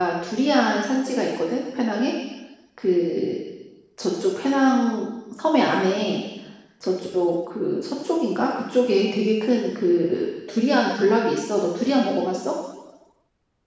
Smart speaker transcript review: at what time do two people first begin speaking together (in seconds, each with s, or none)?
none